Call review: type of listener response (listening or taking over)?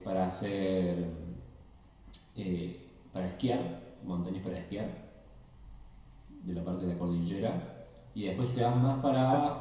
listening